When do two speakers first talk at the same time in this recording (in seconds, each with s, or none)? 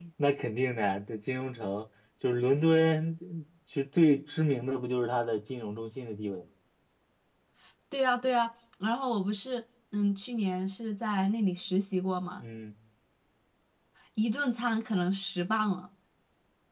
none